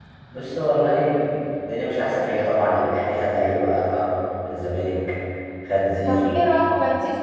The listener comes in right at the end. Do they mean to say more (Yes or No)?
Yes